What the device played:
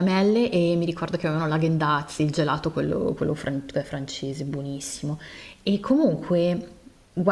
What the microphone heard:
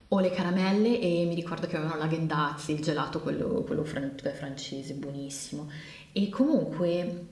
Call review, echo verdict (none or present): present